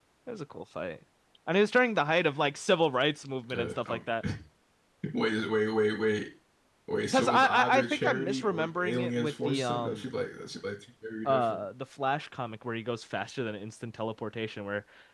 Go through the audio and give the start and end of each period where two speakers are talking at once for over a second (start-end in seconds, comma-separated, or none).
7.1-10.1